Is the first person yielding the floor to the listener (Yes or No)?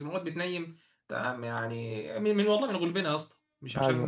No